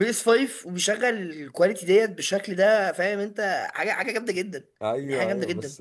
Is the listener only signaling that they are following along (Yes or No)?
No